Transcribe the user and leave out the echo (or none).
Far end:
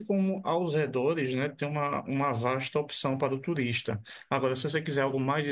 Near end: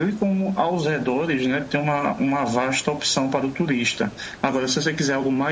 none